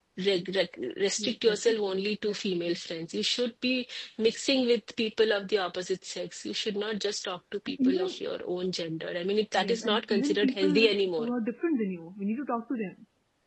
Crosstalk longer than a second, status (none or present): present